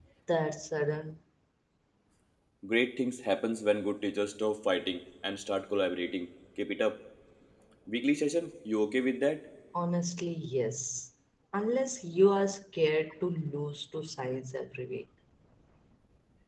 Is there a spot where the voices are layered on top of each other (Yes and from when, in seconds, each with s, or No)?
No